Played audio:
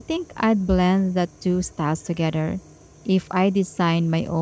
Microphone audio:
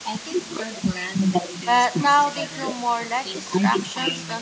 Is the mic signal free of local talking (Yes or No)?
No